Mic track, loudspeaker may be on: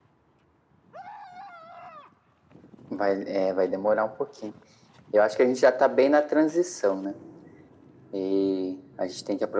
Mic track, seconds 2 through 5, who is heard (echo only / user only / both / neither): echo only